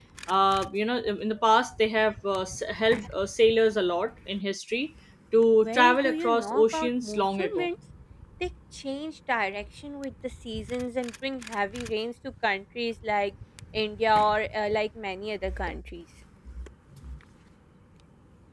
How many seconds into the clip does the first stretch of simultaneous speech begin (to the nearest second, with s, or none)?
6 s